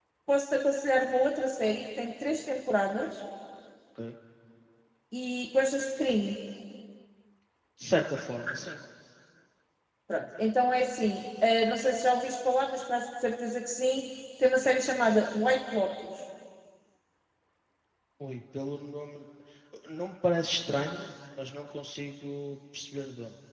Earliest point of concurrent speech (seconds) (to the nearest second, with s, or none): none